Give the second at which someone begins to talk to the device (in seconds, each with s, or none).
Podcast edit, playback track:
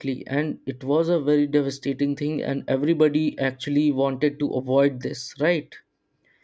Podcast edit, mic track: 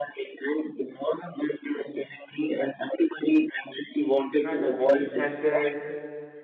4.4 s